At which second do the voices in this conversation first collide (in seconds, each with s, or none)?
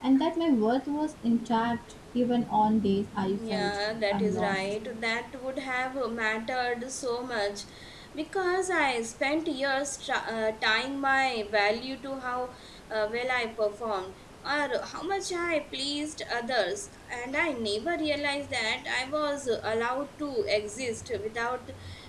3.4 s